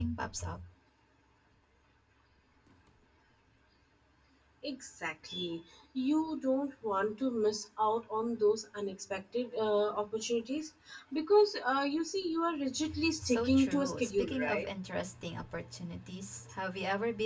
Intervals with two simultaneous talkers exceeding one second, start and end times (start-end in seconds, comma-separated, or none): 13.2-14.7